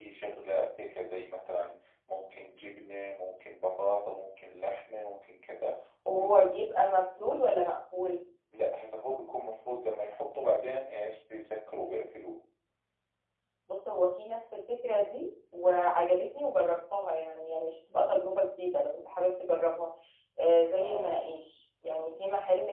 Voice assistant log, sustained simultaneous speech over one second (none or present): none